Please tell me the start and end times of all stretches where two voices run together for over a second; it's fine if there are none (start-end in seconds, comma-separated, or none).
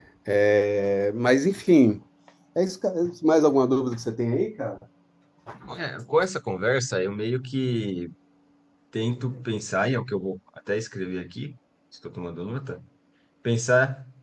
none